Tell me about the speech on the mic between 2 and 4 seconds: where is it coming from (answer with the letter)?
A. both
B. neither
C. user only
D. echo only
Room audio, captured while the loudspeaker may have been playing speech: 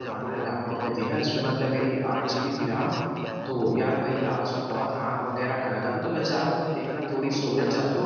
A